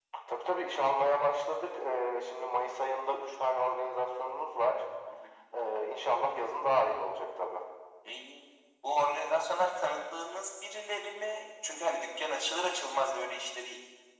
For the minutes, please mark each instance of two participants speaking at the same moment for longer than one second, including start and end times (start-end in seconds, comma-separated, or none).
none